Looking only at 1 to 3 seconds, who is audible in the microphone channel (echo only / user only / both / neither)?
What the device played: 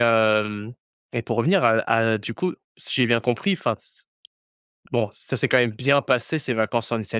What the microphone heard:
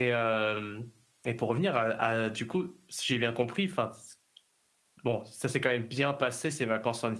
echo only